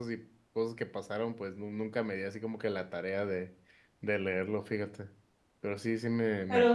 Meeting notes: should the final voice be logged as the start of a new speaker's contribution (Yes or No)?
Yes